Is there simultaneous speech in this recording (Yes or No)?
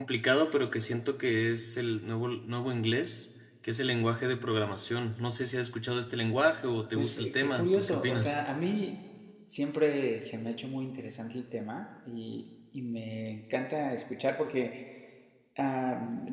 Yes